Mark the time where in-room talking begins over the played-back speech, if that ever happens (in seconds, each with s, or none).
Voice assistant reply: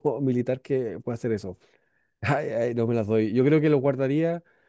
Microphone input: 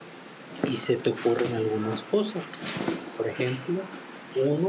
0.6 s